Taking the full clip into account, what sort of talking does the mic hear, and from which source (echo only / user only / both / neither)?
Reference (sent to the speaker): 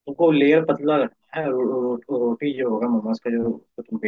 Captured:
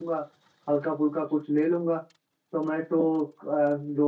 user only